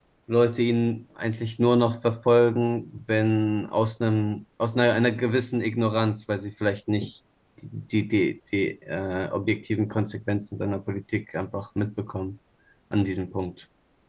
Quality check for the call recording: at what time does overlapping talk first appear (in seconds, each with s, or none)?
none